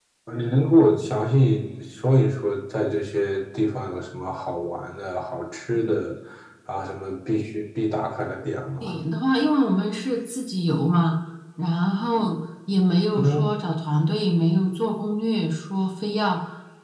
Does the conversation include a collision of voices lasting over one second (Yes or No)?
No